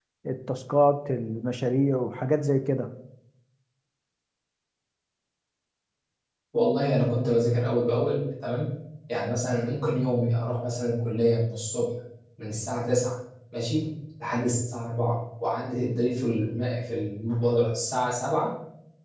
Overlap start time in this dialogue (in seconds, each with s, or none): none